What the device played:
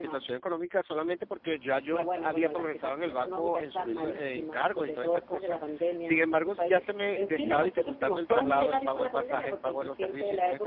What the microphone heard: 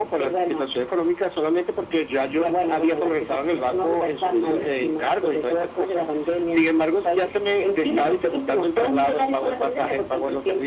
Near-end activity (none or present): none